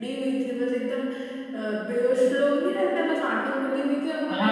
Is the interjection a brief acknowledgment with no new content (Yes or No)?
No